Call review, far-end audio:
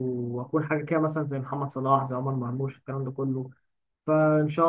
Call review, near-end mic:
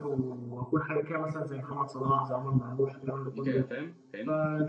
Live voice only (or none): دي كده فاهم فاهمني